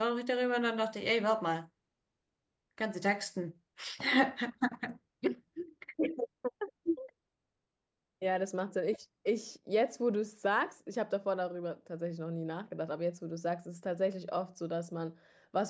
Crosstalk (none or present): none